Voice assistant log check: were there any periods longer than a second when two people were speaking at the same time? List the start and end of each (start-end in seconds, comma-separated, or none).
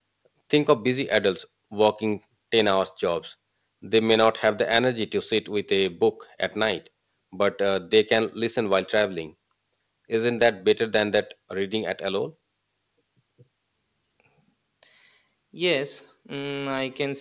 none